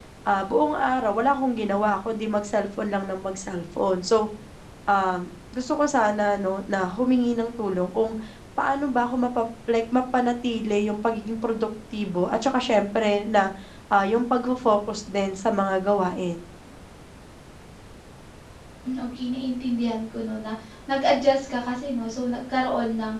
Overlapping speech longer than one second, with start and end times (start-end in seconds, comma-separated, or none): none